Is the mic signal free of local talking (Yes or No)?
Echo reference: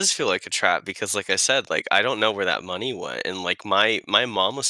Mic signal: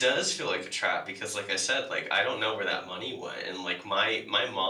Yes